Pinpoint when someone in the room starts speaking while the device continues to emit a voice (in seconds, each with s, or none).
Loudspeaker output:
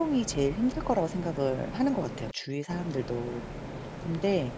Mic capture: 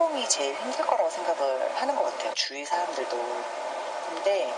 none